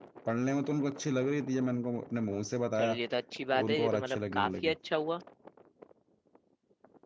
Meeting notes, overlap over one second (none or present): present